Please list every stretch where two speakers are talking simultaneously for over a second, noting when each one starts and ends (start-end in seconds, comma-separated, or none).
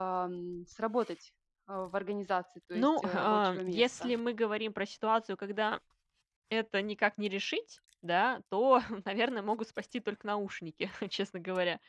2.7-4.1